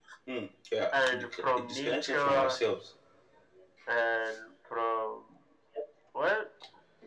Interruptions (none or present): present